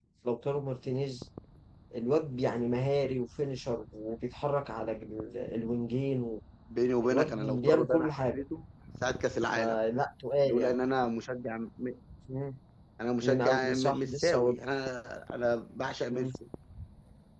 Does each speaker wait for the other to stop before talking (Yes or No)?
No